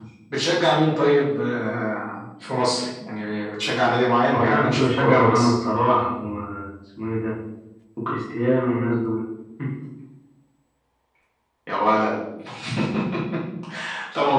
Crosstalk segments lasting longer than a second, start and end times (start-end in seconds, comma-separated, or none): 4.3-5.5